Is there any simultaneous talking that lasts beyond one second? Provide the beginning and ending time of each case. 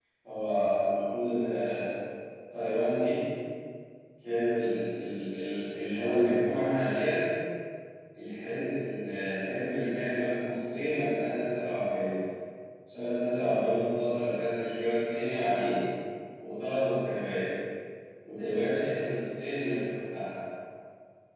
none

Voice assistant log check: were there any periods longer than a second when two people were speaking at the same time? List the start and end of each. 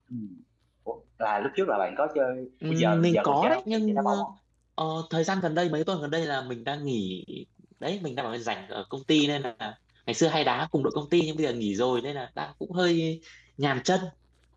2.7-4.2

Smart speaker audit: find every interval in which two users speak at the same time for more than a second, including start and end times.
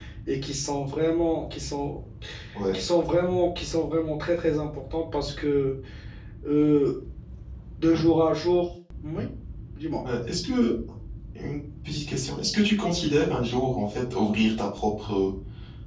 none

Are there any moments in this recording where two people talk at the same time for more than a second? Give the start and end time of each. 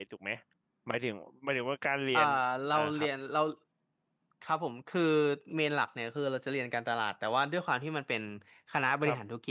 none

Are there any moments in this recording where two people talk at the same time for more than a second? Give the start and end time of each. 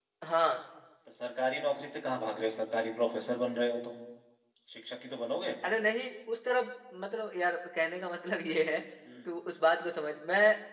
none

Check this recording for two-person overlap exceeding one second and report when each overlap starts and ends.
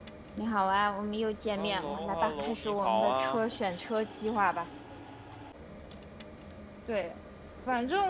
1.6-3.4

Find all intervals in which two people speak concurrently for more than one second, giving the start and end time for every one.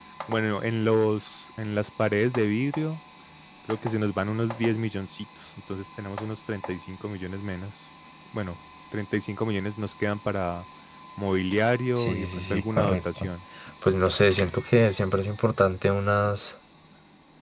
11.9-13.3

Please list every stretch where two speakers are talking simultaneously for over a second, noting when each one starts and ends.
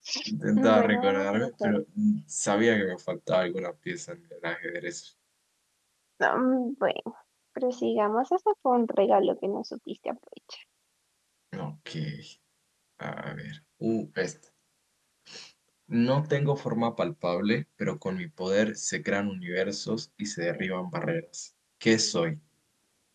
0.6-1.8

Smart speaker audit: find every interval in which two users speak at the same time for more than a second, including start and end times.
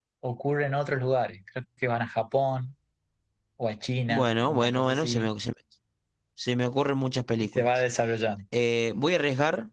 4.1-5.3

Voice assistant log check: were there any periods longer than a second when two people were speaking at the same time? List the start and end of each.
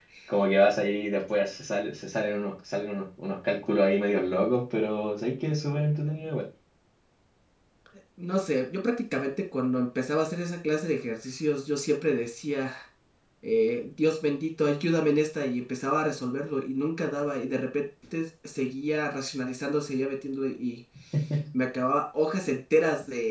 none

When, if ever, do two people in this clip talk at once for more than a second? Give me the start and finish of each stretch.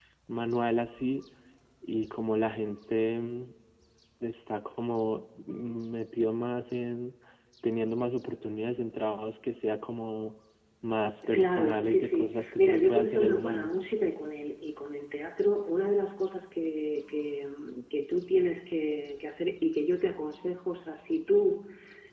11.3-13.7

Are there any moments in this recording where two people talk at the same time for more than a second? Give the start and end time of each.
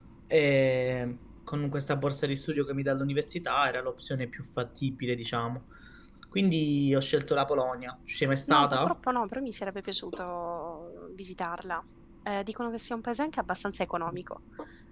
none

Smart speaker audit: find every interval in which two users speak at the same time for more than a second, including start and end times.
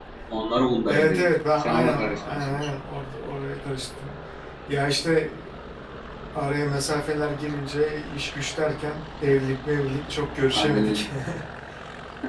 0.9-2.6

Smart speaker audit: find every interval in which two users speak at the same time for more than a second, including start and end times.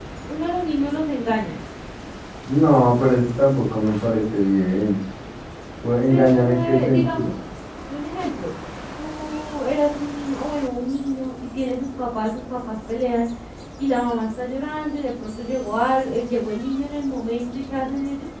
6.1-7.3

